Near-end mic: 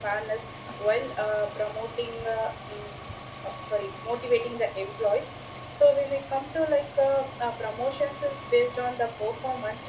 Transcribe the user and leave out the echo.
none

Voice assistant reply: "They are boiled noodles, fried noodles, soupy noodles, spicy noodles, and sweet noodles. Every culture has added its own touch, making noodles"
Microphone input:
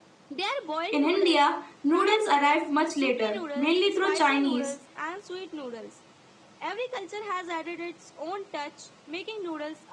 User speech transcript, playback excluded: In India, noodles arrived much later, mainly through Chinese

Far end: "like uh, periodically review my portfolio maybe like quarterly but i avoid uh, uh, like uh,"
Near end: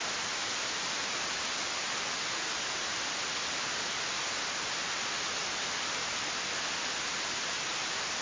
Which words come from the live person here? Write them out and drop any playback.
none

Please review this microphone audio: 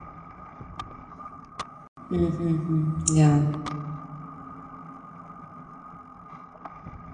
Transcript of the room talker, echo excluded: Mm-hmm. Yeah.

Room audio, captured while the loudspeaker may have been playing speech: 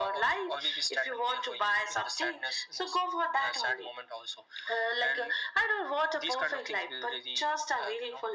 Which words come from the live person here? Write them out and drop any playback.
none

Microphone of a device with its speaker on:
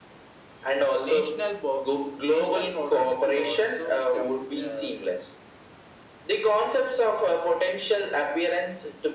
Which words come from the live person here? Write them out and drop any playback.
National bo- national borders could also become uh,

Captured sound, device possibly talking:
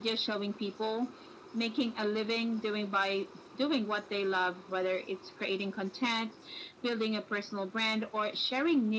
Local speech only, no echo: none

